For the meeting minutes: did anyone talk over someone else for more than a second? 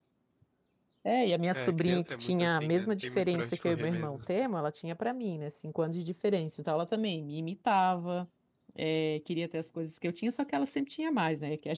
Yes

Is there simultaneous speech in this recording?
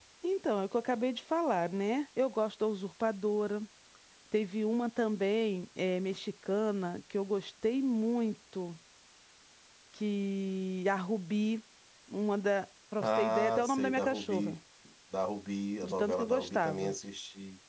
Yes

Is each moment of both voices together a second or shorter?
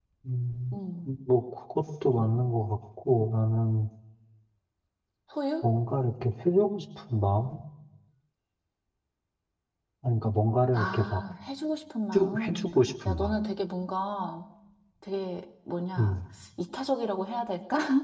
Yes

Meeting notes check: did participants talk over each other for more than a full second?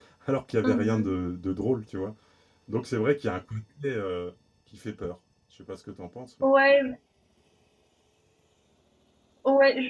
No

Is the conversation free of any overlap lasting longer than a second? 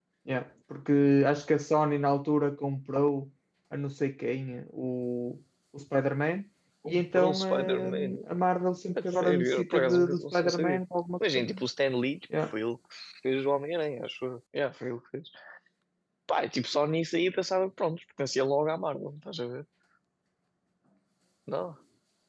No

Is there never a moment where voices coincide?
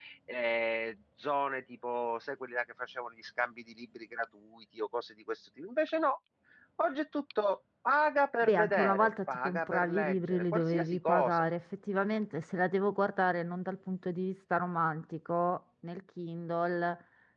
No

